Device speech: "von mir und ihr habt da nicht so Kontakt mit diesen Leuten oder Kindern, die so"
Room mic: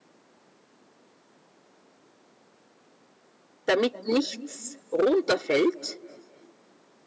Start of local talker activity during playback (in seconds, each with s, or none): 3.6 s